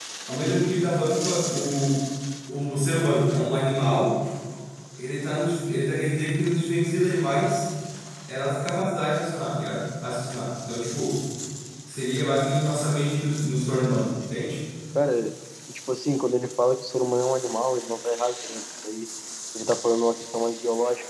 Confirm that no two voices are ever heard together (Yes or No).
Yes